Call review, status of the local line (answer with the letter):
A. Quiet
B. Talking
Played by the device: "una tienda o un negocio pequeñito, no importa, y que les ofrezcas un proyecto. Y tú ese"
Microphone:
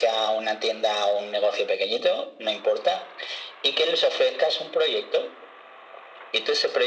A